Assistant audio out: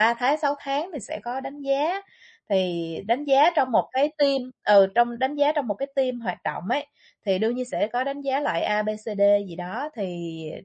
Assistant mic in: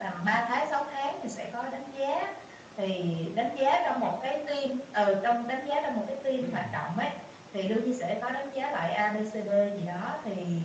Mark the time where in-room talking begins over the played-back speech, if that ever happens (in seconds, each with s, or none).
6.4 s